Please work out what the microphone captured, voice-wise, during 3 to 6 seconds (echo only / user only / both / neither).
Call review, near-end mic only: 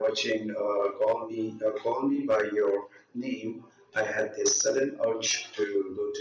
echo only